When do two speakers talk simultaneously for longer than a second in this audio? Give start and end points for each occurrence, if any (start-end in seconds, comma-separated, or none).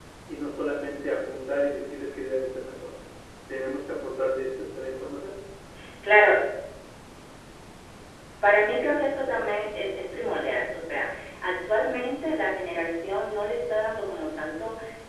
none